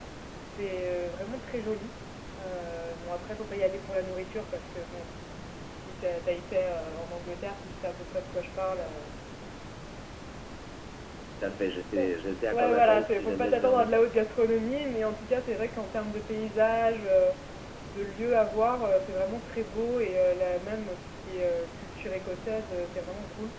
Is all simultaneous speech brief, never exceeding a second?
No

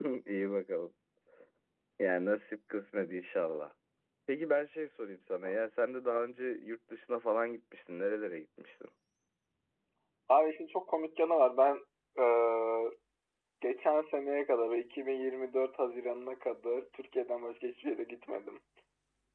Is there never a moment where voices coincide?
Yes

